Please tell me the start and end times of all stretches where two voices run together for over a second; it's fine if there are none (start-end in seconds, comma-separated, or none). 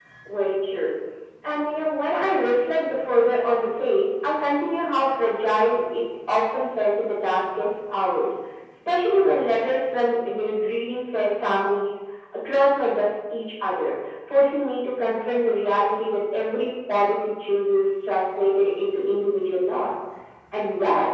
none